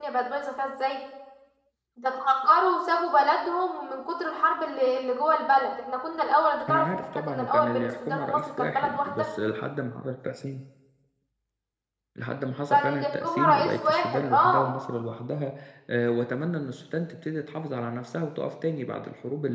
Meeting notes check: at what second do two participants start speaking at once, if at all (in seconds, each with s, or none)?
6.7 s